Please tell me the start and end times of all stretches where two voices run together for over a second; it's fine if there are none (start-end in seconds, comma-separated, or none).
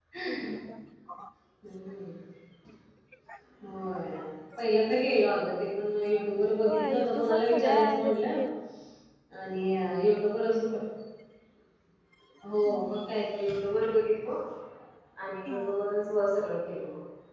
6.7-8.4